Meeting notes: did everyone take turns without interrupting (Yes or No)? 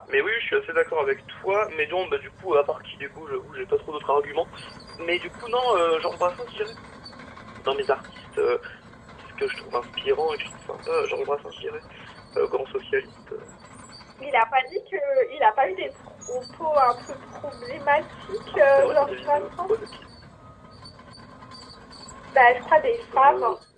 No